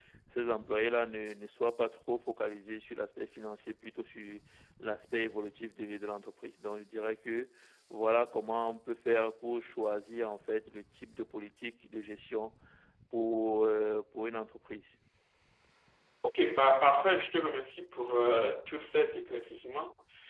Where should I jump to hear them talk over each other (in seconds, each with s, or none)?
none